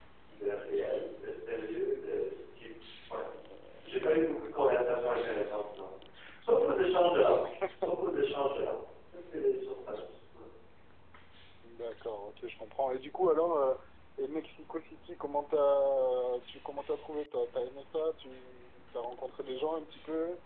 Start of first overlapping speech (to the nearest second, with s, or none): none